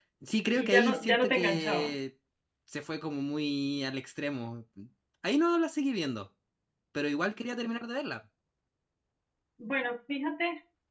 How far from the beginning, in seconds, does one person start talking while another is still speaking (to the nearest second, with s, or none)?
1 s